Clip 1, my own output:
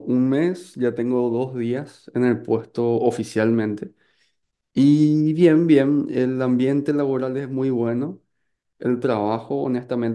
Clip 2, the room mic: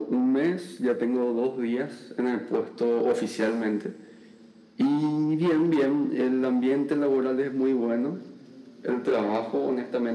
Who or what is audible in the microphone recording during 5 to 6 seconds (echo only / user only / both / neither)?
echo only